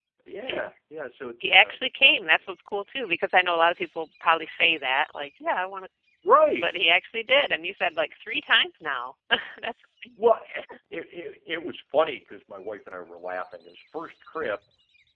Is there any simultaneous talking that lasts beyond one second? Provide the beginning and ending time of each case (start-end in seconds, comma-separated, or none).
none